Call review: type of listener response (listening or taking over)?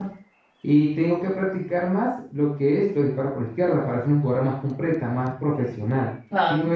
taking over